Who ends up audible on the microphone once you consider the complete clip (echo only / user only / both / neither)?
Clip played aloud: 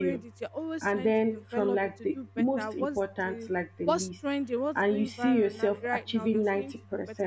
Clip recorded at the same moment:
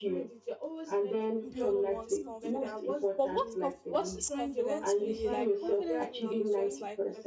both